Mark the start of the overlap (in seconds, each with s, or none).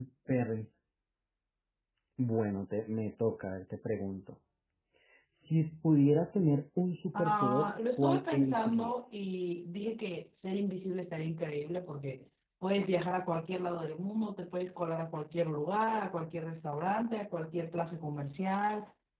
7.1 s